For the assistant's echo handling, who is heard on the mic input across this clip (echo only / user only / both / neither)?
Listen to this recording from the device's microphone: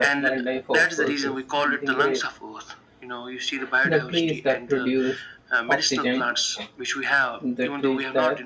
both